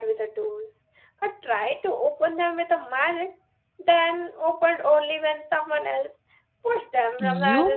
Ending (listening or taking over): taking over